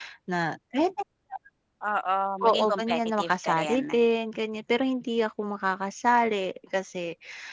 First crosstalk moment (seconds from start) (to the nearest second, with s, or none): 2 s